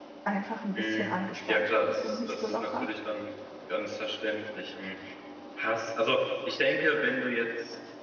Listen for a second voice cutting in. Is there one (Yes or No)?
Yes